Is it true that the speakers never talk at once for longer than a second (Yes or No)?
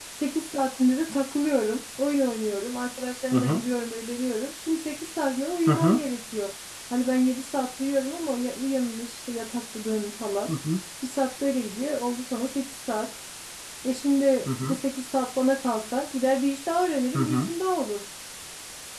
Yes